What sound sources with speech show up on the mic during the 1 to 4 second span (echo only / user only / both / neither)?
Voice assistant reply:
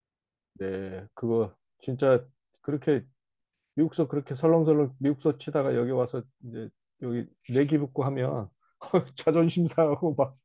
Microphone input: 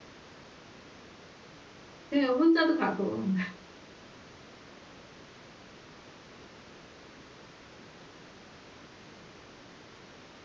user only